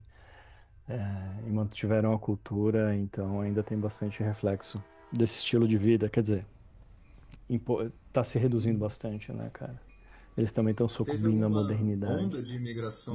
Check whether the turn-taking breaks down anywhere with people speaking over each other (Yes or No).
Yes